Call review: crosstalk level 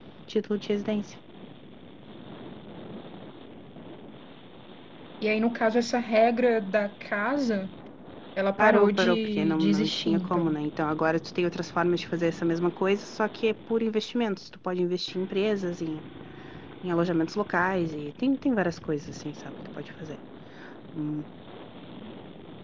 present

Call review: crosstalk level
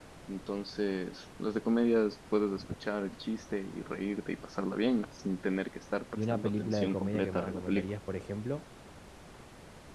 present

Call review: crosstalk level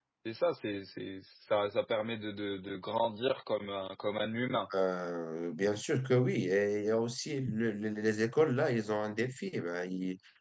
none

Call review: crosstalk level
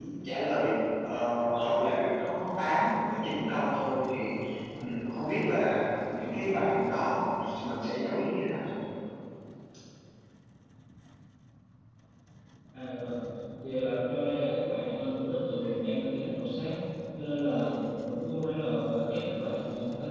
none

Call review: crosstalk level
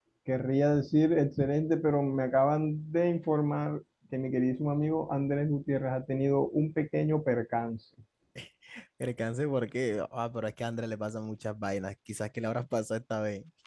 none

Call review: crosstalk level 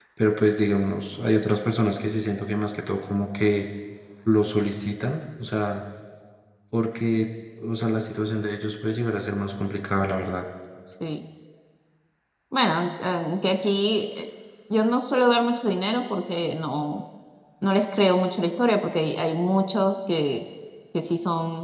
none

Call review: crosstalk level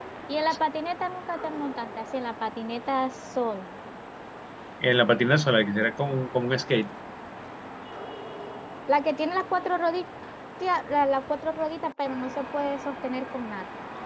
none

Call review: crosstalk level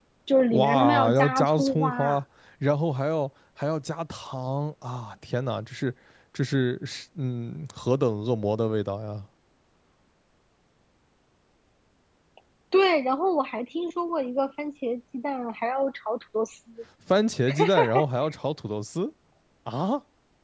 present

